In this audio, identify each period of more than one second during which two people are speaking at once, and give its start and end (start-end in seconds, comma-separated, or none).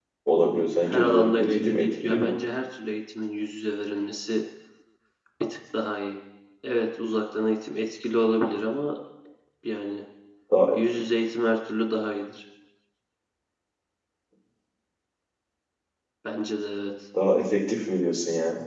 0.9-2.4